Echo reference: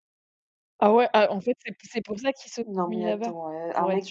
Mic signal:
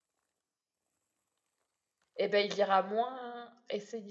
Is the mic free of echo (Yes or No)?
Yes